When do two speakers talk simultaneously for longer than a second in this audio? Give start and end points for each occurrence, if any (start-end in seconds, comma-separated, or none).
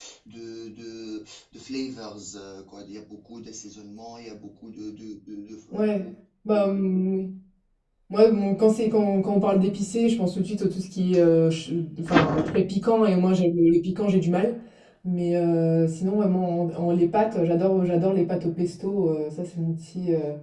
none